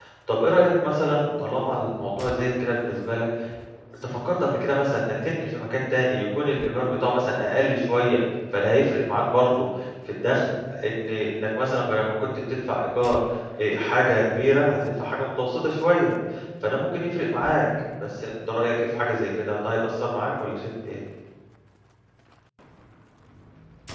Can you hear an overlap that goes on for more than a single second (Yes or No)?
No